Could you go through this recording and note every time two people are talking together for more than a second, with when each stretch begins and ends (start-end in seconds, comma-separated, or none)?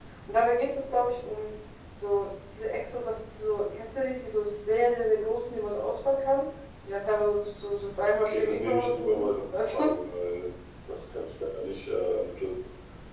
8.2-9.9